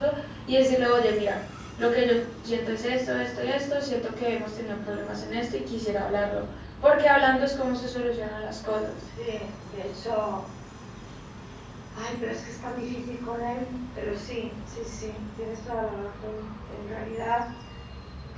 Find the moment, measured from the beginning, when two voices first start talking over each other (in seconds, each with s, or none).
none